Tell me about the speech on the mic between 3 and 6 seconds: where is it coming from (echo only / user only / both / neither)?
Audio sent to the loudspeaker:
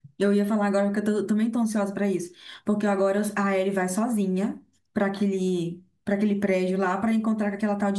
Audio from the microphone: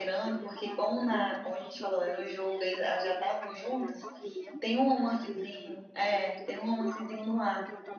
both